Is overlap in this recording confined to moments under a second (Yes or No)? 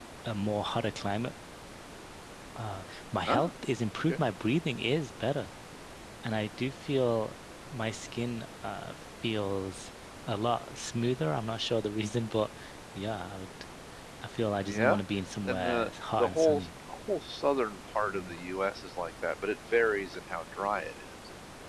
No